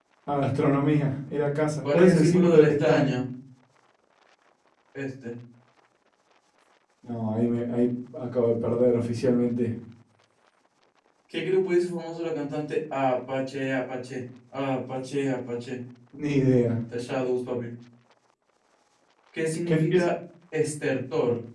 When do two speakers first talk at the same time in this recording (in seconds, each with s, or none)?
1.8 s